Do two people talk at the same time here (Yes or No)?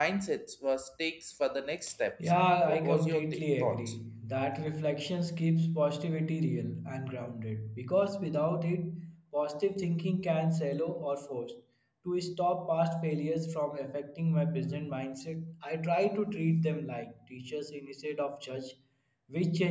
Yes